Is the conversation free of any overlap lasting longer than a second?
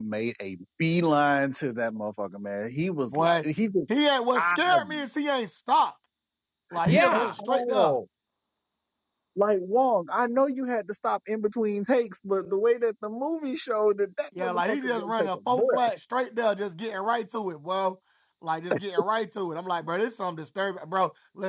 No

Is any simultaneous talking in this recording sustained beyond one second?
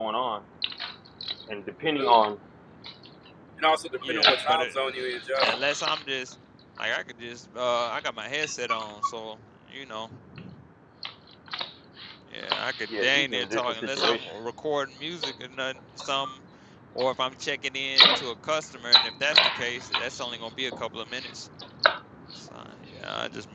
Yes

